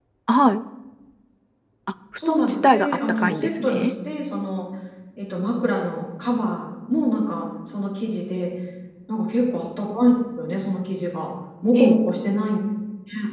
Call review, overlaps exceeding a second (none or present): present